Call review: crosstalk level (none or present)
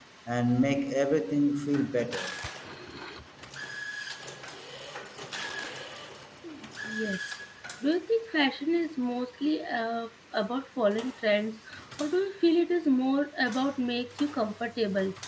none